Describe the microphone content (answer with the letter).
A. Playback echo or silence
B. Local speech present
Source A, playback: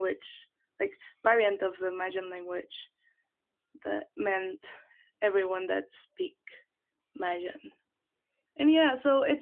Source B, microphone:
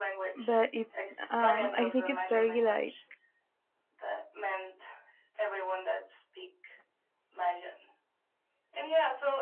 B